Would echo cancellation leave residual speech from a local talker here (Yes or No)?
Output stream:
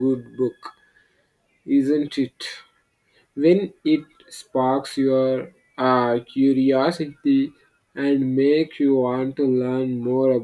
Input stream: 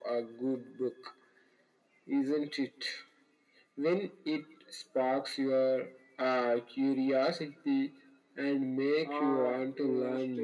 Yes